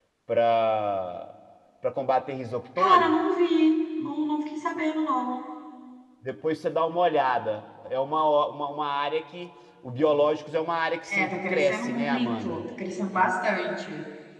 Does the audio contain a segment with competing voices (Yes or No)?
Yes